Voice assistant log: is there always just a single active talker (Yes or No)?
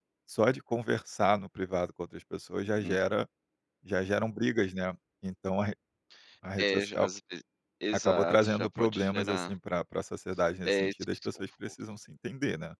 No